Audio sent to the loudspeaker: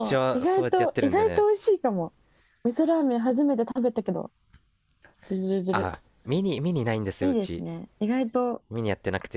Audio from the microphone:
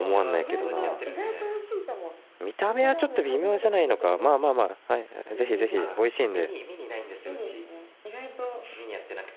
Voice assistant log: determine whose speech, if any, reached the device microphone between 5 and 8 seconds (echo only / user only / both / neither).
both